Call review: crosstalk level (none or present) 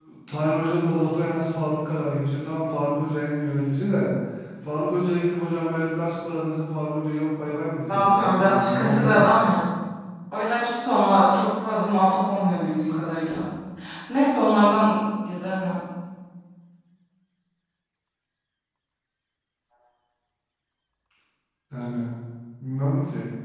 present